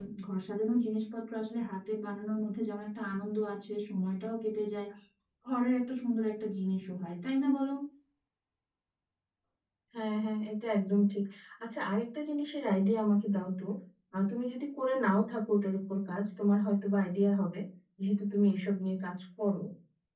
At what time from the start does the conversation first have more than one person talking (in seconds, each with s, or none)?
none